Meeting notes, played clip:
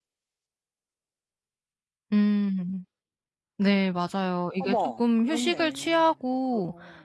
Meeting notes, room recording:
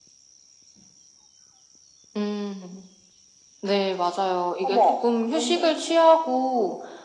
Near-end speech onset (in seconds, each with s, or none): none